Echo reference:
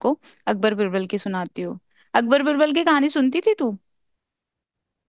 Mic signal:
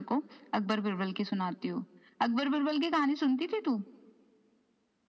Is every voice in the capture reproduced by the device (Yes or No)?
Yes